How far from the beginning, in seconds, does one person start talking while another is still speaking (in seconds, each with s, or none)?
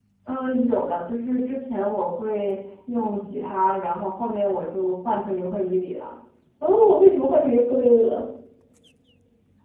none